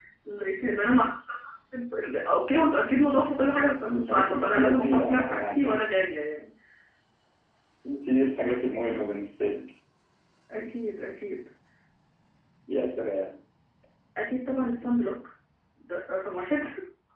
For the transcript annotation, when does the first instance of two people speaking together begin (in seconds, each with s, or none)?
3.9 s